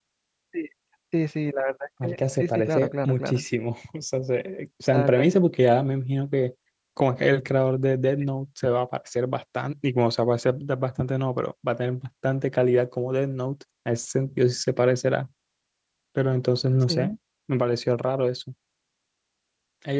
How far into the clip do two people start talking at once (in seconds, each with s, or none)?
2.0 s